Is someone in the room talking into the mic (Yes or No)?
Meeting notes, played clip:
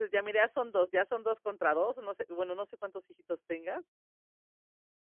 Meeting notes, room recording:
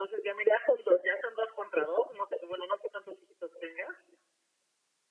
No